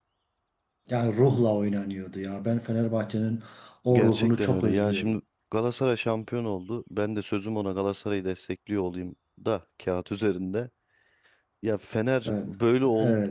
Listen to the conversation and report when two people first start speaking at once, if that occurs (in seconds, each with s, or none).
3.9 s